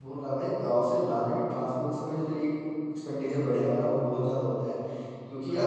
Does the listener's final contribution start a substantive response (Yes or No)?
No